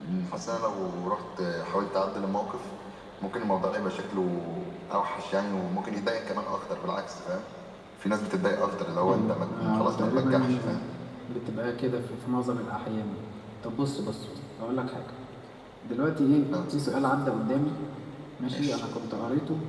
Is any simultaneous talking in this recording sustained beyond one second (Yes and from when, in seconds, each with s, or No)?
Yes, from 9.1 s